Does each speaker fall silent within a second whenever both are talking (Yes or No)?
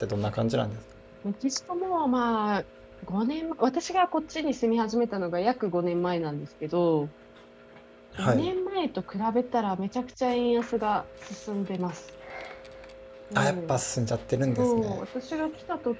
Yes